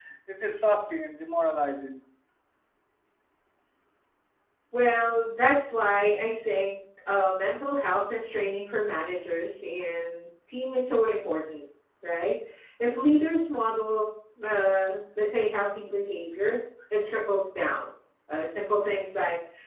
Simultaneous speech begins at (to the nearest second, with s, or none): none